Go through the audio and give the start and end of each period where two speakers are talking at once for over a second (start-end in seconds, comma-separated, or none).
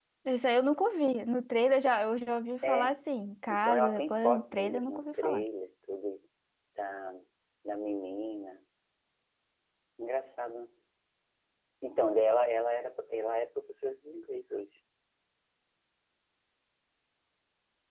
3.5-5.4